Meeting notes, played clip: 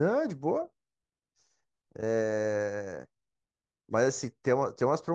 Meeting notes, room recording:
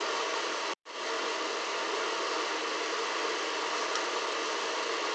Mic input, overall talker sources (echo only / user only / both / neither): neither